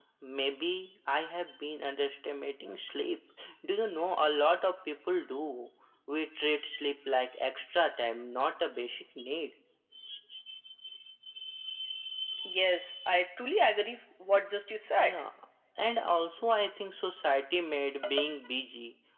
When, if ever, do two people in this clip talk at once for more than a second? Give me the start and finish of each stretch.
none

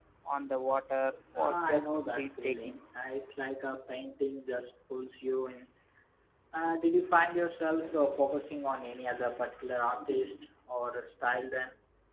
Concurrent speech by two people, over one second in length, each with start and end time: 1.4-2.8

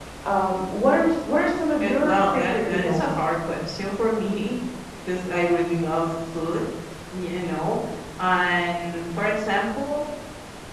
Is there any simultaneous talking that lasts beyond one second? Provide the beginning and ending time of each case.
1.8-3.2

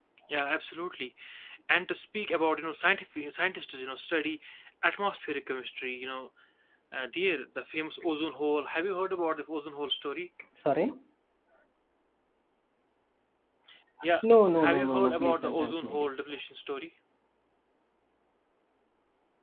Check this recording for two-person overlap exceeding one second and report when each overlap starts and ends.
14.6-16.1

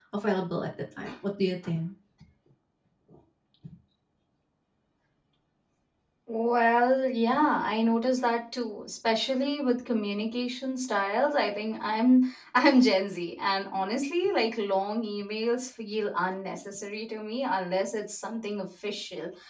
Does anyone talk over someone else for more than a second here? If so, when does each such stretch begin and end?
none

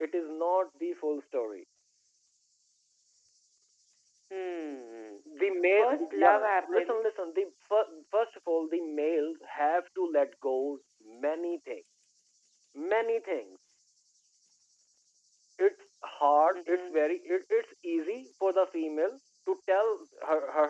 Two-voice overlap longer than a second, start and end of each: 5.8-7.2

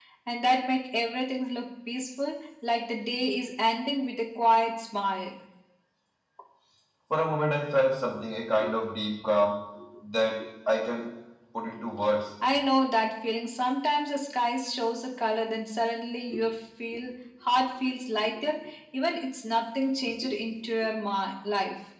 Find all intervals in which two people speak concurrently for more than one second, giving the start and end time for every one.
none

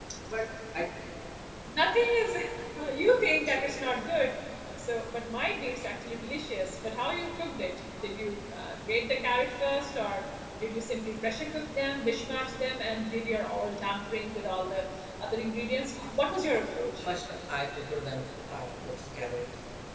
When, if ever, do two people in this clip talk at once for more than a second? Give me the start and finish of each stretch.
none

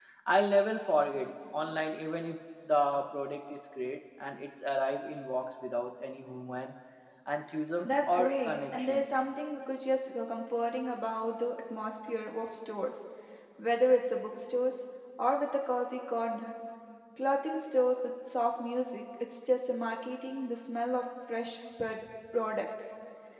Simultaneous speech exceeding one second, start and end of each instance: 7.8-9.1

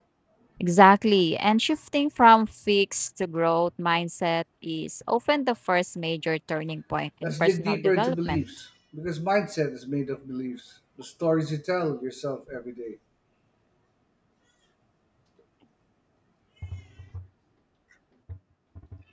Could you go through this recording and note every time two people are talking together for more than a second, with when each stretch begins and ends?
7.2-8.5

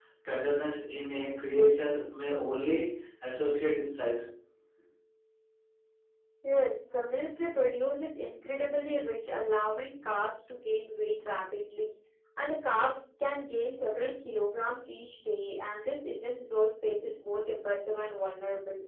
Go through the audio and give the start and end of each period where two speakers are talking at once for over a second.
none

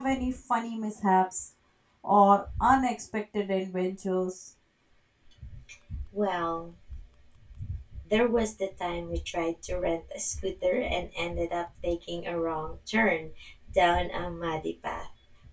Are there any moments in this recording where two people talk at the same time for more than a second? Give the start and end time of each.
none

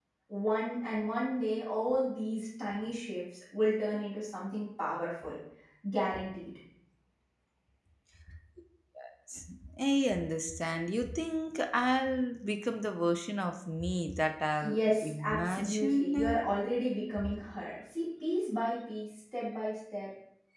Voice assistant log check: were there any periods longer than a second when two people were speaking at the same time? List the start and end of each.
14.6-16.5

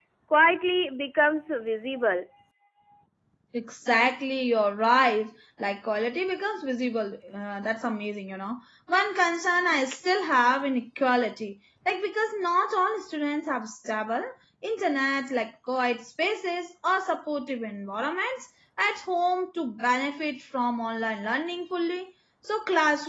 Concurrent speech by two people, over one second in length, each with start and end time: none

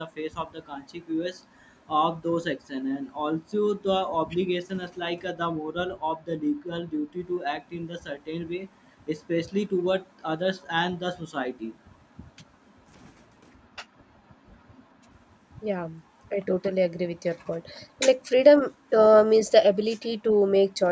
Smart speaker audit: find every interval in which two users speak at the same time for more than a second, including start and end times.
none

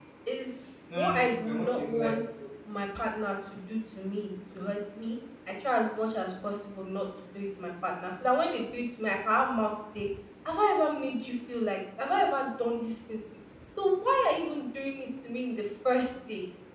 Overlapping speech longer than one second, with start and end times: 0.9-2.1

